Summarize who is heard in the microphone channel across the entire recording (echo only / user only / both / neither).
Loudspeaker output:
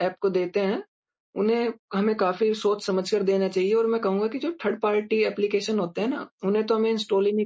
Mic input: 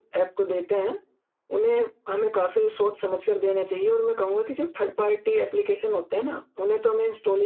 echo only